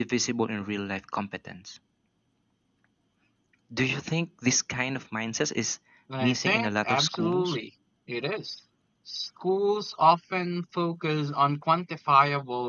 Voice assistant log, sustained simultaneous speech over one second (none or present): present